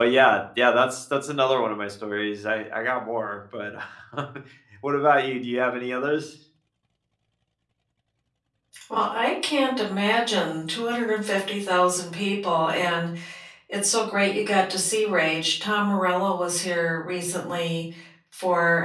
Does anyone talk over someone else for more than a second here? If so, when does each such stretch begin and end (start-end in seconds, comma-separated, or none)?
none